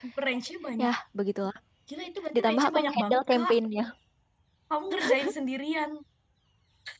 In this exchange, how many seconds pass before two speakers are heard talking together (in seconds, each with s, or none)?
2.4 s